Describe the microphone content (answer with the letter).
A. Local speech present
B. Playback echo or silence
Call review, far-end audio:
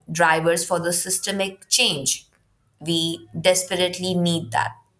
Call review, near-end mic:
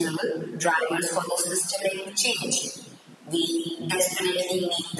B